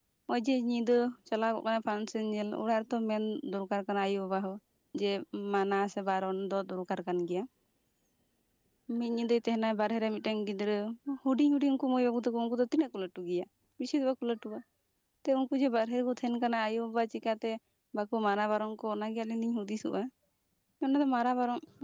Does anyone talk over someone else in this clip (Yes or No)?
No